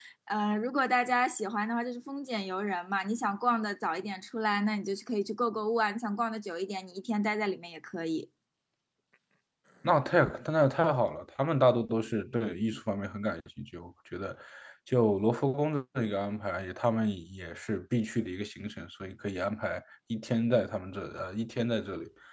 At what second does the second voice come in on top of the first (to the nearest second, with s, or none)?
none